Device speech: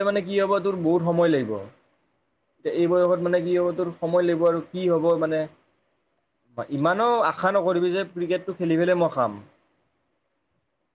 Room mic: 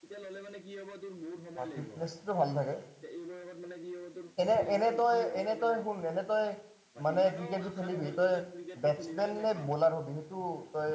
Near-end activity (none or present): present